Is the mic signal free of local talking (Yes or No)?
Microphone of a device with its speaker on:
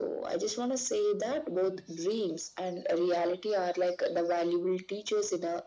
Yes